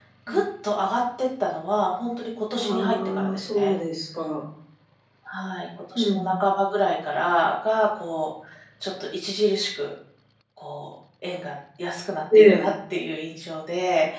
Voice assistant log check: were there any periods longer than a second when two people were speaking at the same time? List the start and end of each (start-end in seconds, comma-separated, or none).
2.5-3.8